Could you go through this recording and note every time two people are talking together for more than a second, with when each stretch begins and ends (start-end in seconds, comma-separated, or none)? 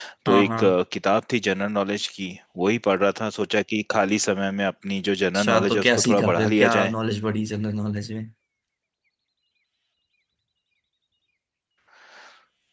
5.4-6.9